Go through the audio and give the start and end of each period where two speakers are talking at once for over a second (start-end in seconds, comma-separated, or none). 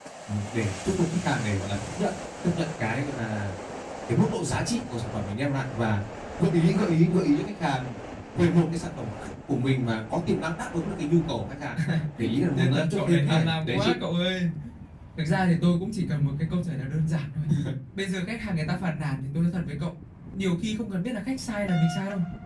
12.6-13.9